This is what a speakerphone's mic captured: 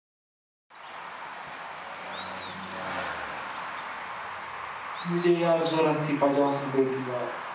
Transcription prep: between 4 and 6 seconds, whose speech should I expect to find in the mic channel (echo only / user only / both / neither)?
user only